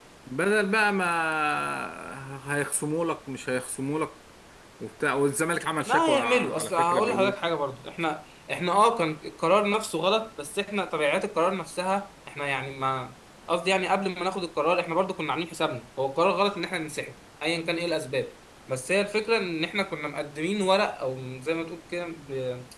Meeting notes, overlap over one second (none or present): present